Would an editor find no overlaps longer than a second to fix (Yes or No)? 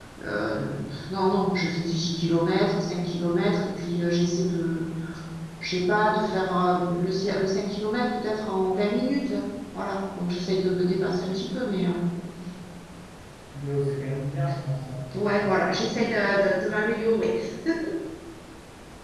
Yes